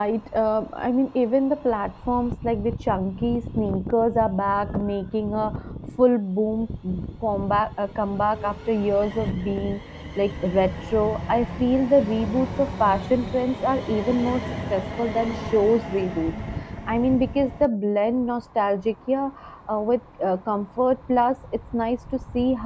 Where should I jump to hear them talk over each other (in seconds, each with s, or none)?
none